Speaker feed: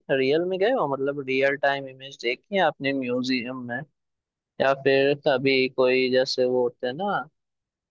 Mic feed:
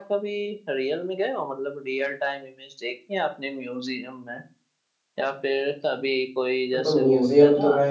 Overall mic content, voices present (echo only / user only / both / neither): both